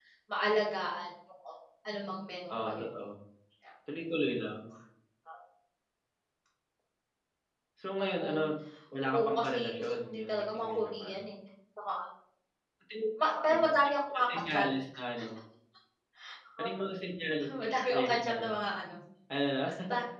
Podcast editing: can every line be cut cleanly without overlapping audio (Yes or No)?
No